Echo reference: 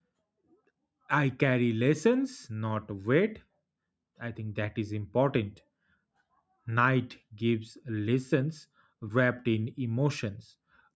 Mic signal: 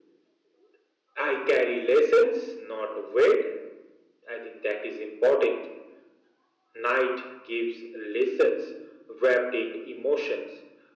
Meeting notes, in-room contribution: none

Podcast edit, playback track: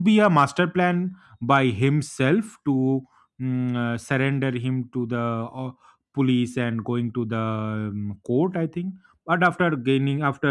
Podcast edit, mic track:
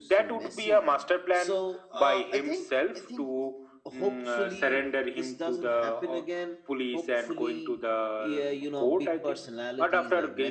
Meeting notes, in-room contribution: present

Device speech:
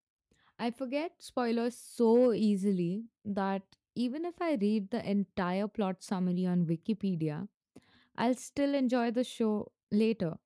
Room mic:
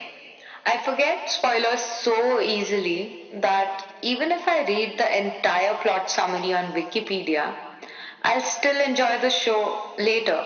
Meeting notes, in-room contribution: none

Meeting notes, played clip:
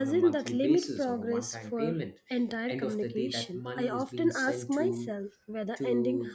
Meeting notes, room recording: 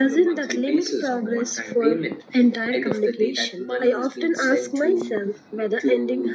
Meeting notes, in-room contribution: none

